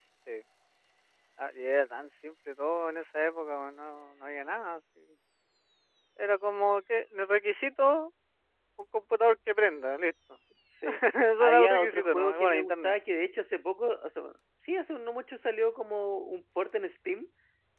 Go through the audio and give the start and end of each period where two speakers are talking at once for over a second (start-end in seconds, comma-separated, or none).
11.4-13.0